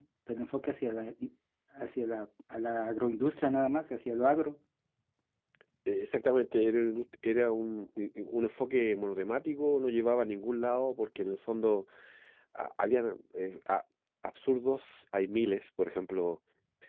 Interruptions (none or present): none